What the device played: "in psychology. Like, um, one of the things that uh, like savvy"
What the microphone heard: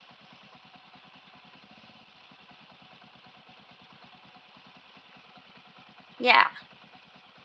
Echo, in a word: none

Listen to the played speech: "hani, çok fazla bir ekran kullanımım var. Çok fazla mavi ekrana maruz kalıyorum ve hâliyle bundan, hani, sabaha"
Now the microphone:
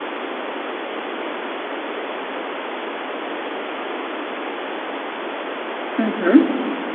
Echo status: none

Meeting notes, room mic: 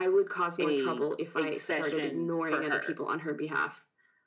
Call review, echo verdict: present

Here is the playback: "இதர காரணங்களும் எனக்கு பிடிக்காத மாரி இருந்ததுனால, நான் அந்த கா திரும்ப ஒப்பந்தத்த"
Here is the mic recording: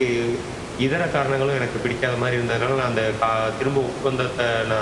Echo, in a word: present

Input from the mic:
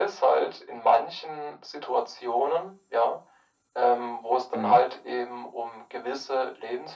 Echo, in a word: present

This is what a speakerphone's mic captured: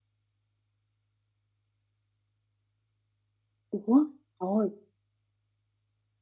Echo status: none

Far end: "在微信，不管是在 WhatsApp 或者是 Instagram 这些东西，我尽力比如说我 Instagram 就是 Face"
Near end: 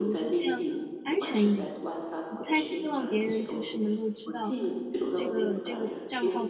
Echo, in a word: present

